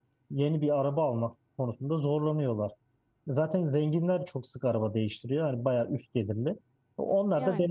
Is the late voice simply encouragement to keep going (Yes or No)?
Yes